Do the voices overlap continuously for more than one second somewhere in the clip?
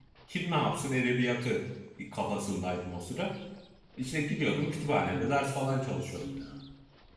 Yes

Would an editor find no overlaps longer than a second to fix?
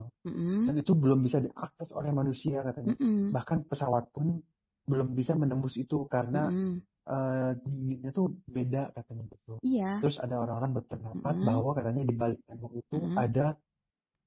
Yes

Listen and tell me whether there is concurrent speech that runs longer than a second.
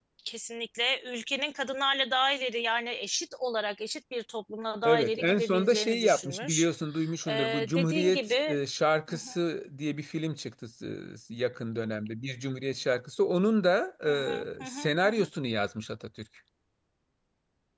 Yes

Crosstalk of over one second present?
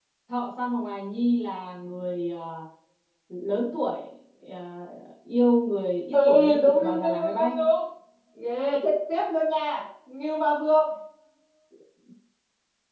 Yes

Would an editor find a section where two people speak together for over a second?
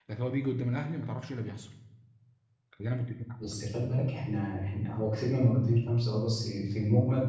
No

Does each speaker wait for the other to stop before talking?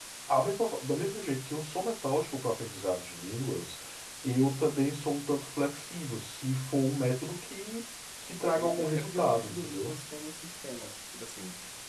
No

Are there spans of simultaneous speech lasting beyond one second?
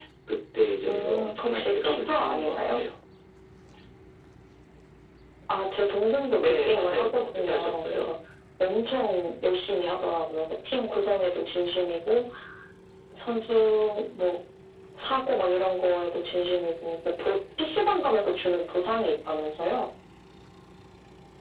Yes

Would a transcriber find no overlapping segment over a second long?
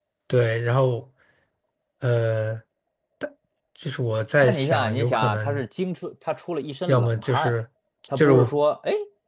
No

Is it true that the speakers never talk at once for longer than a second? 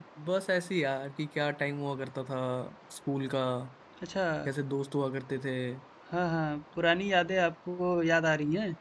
Yes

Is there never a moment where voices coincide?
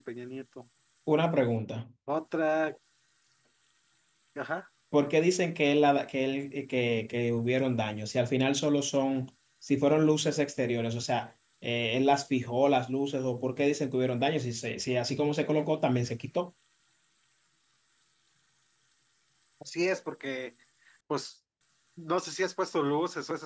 Yes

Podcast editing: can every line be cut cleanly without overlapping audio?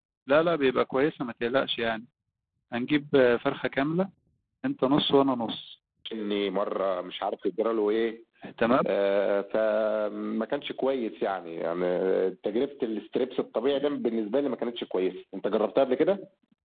Yes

